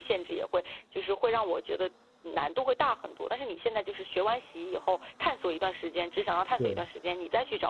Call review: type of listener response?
listening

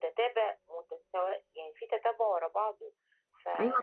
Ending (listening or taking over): taking over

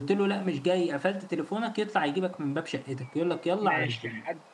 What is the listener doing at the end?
taking over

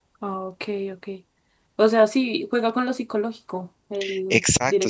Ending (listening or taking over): taking over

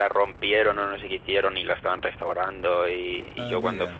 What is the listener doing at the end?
listening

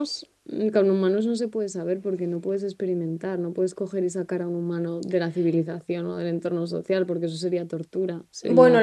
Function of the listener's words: taking over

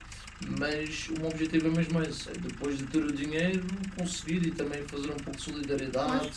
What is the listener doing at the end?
taking over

